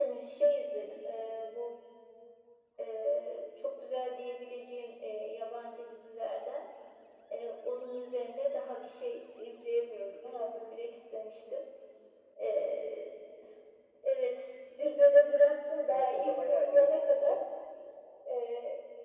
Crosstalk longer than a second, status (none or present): present